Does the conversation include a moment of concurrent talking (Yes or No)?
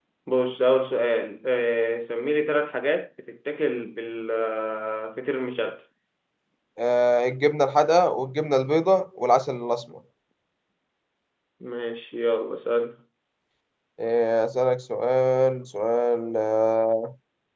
No